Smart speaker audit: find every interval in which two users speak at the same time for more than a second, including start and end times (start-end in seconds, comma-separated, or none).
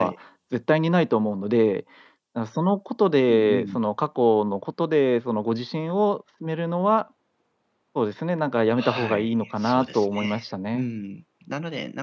8.8-10.2